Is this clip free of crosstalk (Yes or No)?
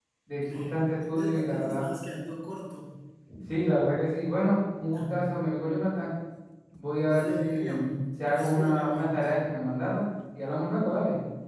No